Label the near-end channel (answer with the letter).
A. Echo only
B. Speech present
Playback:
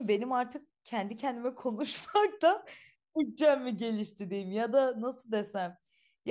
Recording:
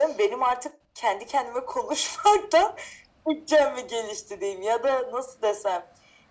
A